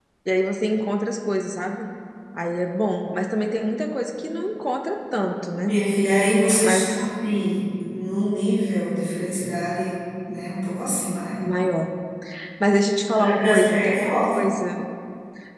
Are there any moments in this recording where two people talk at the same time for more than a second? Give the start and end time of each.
13.1-14.4

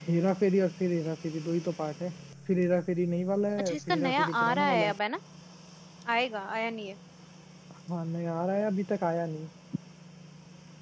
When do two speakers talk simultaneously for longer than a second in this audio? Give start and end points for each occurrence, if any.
3.6-5.0

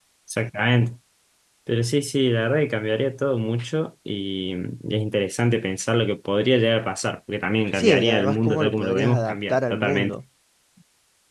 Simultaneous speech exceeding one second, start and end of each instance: 7.7-10.2

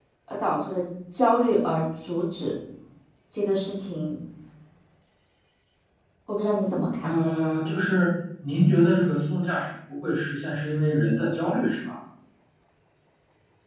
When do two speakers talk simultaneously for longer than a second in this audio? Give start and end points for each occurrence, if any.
none

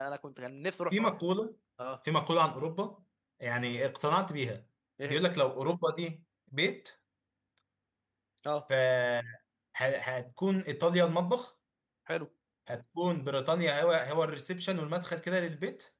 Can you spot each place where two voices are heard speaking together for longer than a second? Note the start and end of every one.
none

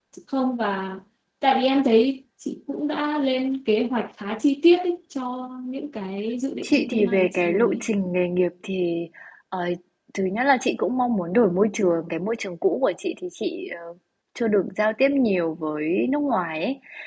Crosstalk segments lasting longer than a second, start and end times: 6.6-7.8

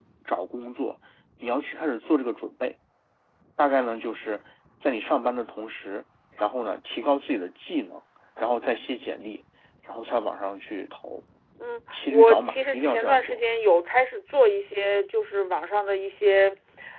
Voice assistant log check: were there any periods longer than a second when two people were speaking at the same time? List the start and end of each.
12.1-13.4

